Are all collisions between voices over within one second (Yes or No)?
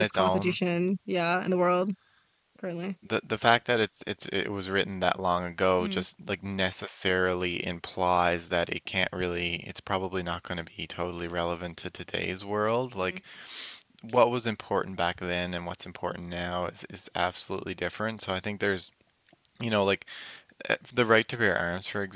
Yes